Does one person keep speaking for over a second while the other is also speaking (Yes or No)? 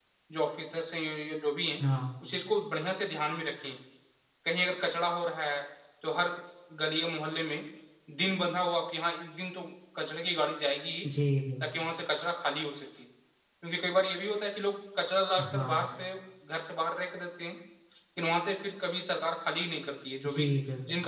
No